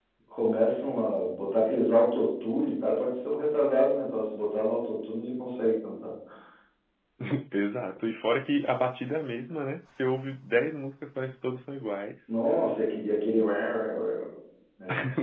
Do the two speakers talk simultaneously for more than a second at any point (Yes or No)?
No